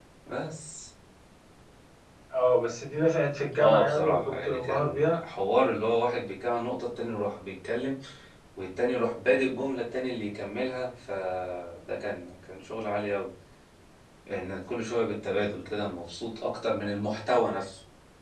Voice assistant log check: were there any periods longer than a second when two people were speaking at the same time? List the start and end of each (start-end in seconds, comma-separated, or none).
3.6-5.2